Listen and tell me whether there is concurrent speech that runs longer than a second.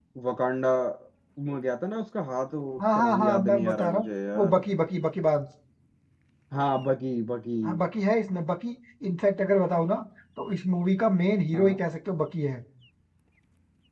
Yes, from 2.8 s

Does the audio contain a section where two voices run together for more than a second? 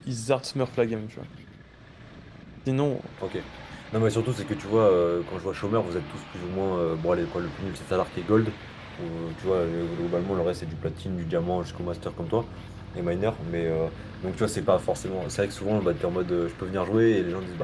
No

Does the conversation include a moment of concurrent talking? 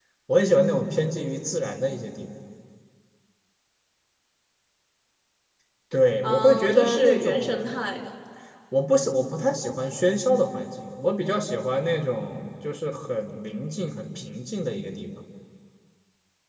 Yes, from 6.2 s

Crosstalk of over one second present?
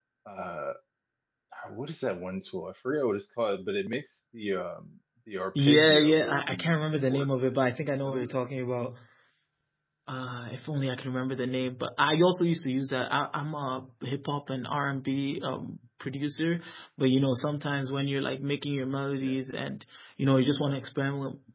Yes, from 5.5 s

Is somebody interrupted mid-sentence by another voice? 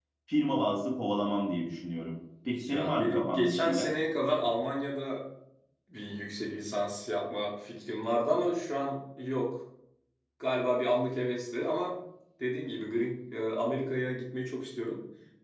Yes, from 2.5 s

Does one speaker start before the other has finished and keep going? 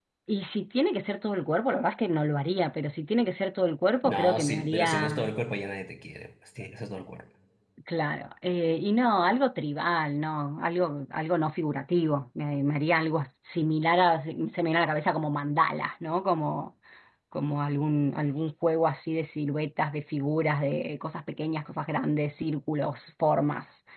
Yes, from 4.0 s

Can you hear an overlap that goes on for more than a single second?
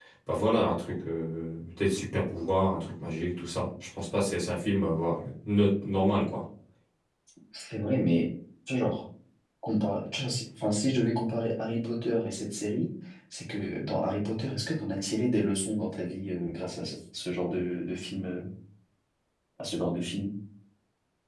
No

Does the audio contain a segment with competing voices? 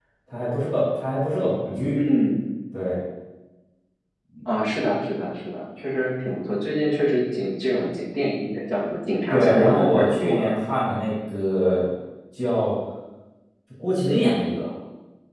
Yes, from 9.3 s

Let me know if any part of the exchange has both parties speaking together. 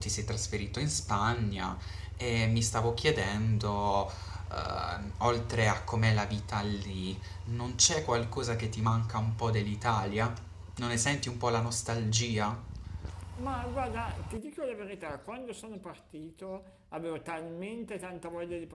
No

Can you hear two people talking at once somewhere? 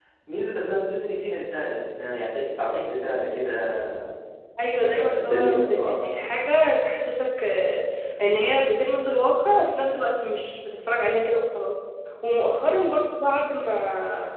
Yes, from 4.8 s

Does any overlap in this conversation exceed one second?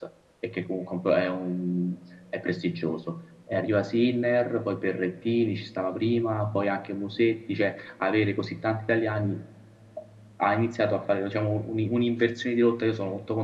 No

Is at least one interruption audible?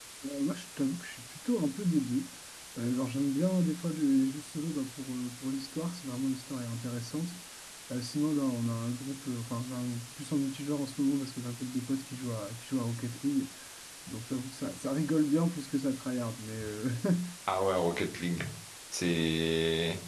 No

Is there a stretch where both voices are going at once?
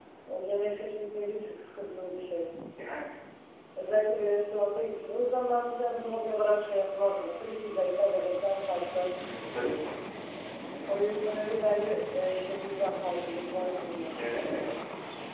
No

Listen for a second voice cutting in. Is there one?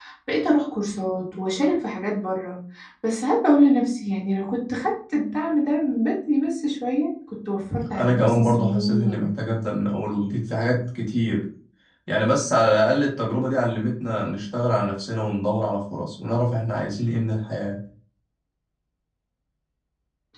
Yes, from 7.9 s

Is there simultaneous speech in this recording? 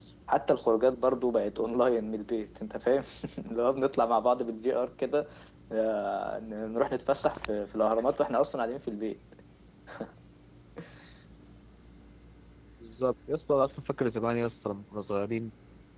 No

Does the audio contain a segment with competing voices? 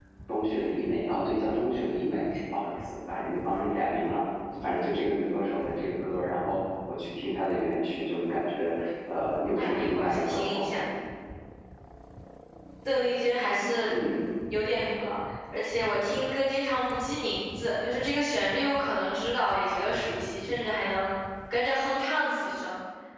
Yes, from 9.5 s

